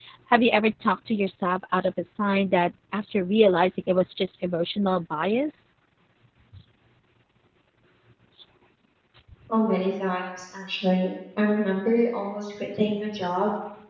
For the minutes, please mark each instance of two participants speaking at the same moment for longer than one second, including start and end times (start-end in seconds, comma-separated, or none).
none